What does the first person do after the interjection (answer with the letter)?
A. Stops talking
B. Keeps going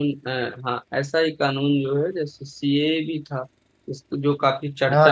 B